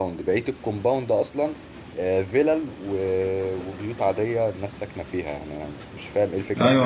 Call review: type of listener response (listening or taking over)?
taking over